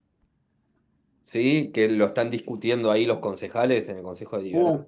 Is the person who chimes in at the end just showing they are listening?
No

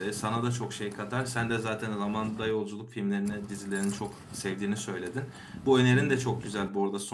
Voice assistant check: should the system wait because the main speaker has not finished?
Yes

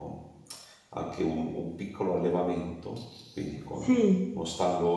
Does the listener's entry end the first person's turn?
No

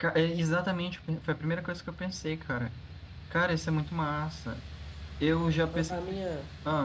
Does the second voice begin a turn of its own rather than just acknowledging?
Yes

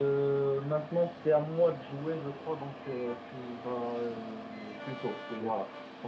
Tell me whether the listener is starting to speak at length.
No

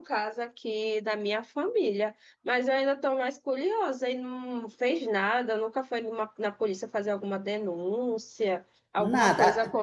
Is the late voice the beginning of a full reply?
No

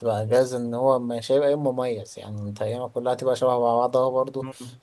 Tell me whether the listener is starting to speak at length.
No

